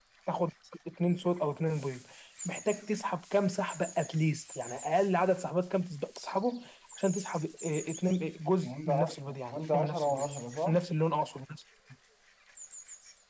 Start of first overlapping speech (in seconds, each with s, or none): 8.6 s